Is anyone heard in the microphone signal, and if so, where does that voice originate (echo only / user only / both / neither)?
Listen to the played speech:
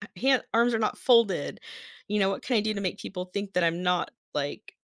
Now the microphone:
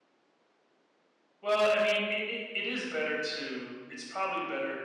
user only